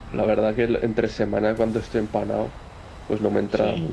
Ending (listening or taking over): listening